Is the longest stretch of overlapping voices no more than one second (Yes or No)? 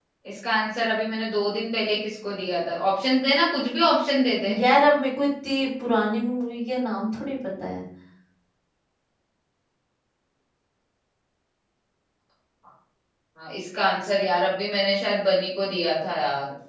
Yes